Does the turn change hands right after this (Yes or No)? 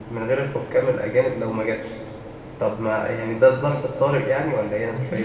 Yes